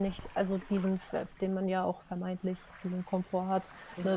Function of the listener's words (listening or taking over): listening